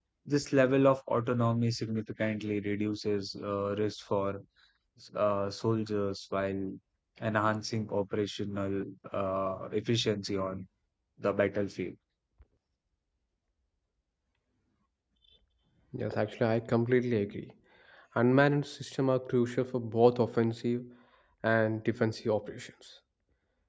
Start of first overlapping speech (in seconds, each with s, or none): none